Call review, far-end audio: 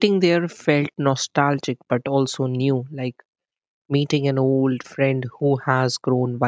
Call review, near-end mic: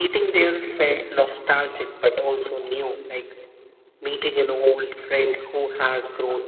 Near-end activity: none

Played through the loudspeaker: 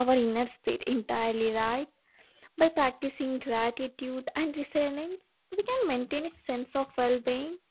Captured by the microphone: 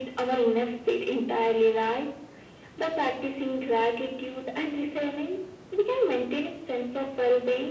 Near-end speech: none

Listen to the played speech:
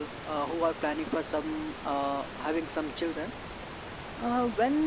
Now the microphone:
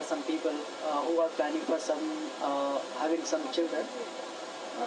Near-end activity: present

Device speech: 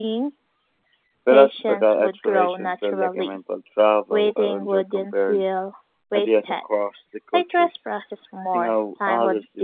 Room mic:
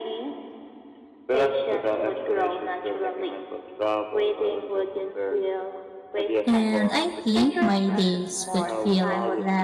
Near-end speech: present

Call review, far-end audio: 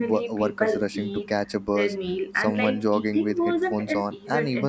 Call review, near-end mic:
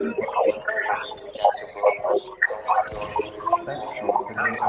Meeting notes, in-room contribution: present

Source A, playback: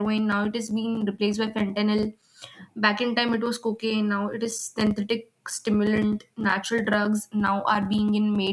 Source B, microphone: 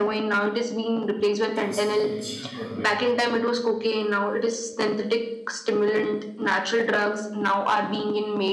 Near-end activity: present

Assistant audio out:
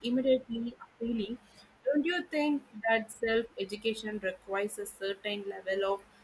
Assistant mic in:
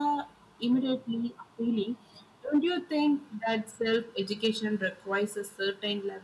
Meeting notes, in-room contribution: none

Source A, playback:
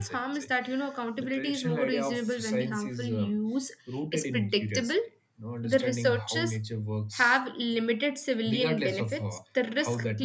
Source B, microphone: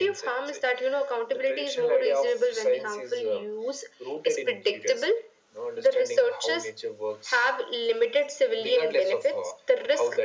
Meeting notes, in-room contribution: none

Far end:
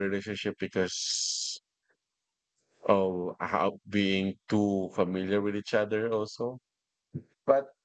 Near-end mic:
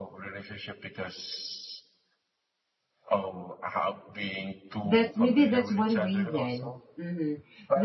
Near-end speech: present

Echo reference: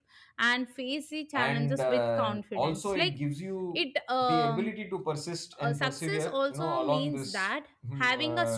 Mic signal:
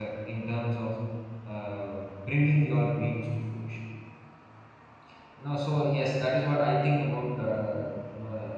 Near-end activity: present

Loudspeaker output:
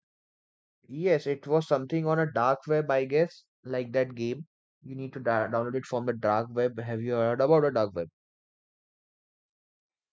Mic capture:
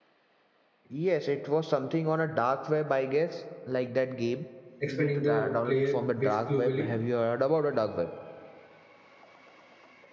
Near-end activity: present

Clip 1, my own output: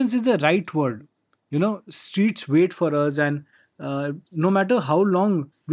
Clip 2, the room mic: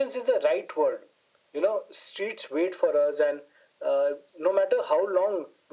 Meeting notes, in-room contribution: none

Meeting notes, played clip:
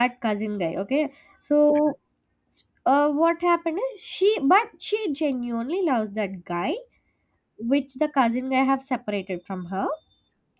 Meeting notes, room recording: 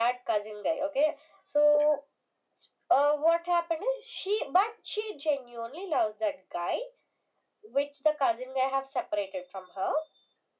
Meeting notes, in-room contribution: none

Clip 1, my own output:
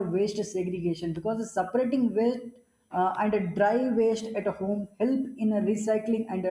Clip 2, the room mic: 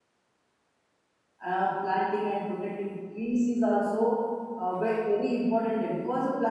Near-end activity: present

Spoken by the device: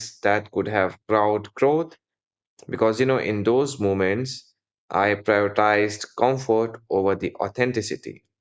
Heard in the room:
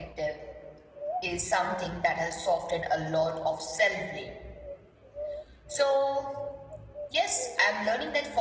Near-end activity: present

